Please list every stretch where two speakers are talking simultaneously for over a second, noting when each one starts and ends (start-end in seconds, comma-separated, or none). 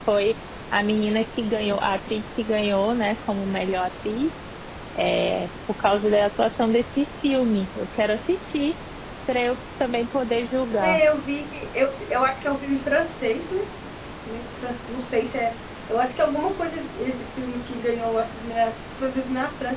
none